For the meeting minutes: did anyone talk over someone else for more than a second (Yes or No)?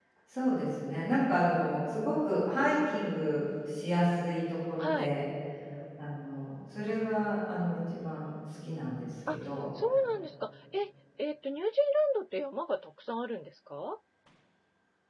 No